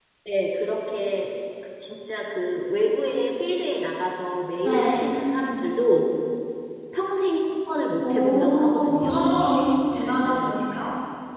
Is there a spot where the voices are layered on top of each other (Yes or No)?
Yes